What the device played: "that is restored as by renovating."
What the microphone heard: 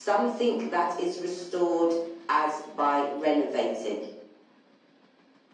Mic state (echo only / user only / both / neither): echo only